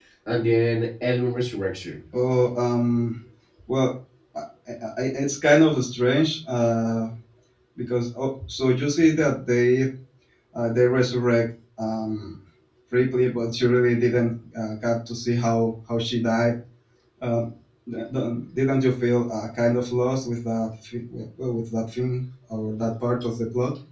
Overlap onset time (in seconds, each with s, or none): none